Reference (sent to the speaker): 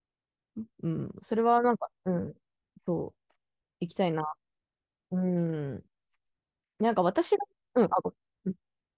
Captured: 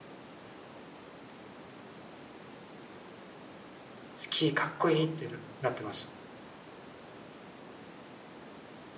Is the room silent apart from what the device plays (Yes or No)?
No